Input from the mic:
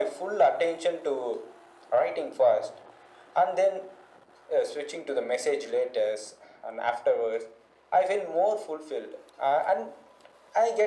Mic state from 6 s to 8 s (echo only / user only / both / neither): echo only